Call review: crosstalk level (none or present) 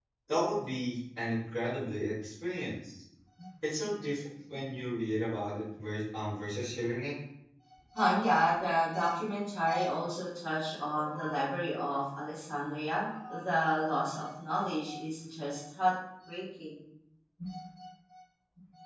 none